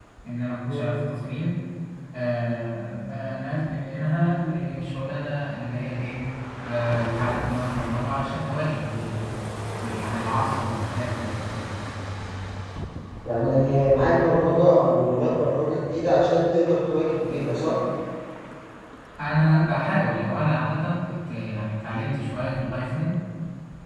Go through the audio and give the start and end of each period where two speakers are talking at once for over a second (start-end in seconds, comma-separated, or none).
none